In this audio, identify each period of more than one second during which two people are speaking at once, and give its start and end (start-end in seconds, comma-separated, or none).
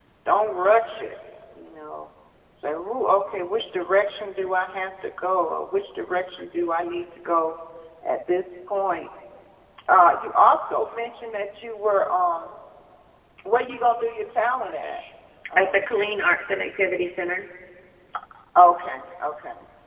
none